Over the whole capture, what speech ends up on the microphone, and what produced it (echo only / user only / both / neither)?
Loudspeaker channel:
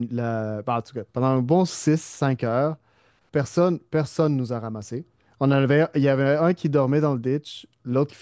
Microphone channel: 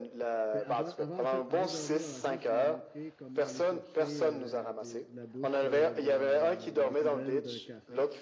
both